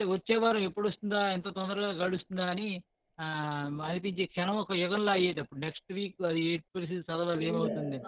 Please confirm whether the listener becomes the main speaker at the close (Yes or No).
Yes